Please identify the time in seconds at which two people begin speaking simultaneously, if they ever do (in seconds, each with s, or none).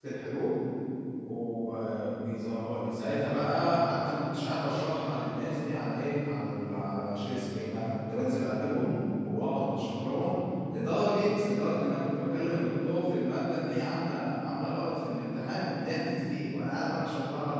none